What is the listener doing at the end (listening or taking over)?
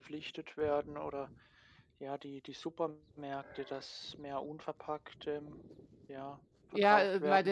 taking over